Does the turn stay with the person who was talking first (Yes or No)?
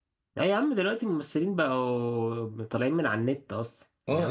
No